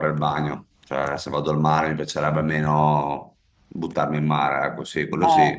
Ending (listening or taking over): taking over